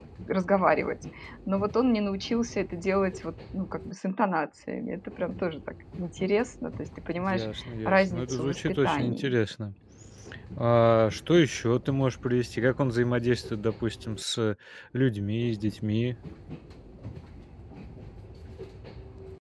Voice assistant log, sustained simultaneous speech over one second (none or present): present